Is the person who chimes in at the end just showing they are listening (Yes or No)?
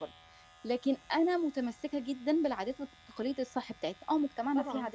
Yes